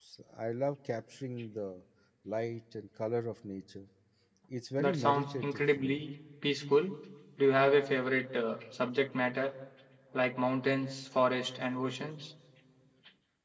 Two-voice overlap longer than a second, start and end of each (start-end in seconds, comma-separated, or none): 4.8-6.0